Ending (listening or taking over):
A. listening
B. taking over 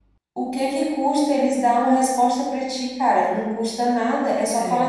A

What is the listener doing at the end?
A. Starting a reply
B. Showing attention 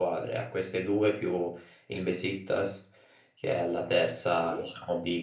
B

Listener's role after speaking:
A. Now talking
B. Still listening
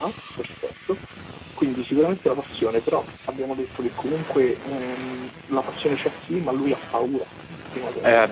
A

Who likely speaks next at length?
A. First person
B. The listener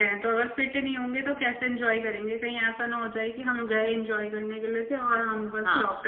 B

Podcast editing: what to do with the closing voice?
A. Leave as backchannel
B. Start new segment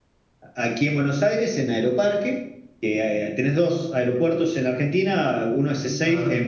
A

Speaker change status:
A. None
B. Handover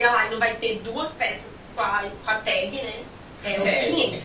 B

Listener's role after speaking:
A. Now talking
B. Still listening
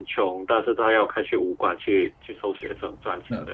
A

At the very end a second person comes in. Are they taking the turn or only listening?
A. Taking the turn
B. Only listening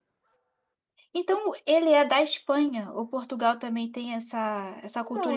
A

